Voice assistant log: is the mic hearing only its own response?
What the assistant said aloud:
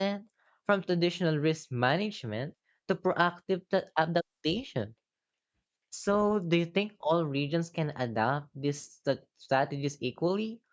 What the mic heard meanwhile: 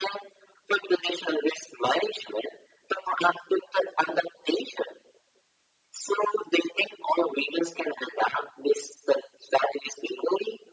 Yes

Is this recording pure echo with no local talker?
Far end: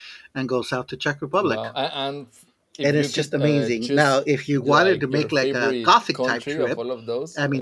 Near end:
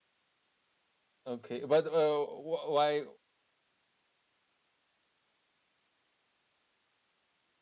No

